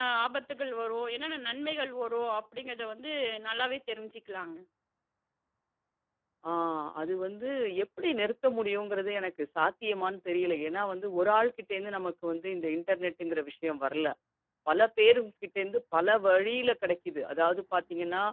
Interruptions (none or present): none